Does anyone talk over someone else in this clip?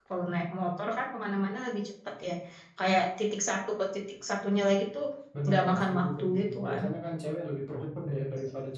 Yes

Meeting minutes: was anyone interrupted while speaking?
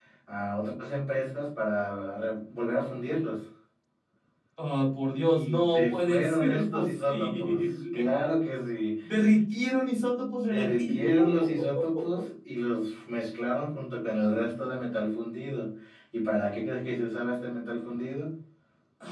Yes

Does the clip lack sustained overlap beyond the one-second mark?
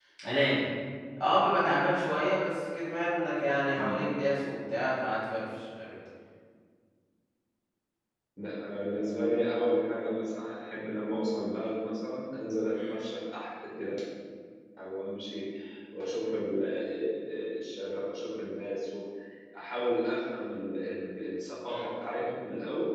Yes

